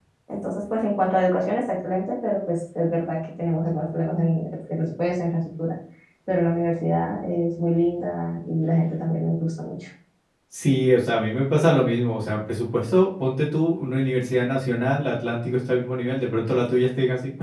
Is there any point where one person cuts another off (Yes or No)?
No